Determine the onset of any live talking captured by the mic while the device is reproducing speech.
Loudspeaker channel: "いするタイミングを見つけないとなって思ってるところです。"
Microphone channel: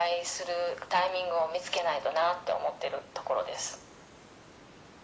none

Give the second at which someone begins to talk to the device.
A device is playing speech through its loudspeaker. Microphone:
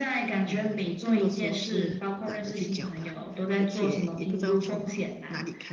0.4 s

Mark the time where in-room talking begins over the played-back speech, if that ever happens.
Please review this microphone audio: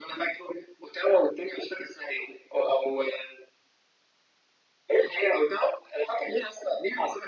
none

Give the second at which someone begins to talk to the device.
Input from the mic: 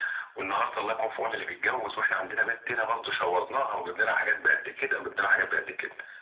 none

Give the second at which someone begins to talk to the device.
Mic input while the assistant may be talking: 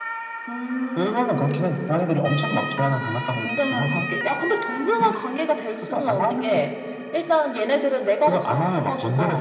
none

